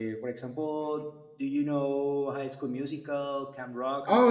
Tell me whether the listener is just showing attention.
No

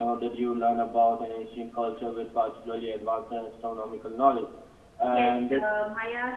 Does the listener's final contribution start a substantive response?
Yes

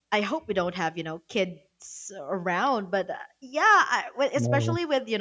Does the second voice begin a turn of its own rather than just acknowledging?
No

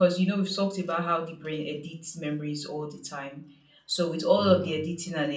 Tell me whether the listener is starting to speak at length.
No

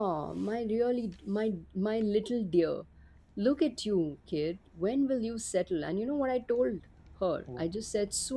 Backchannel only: Yes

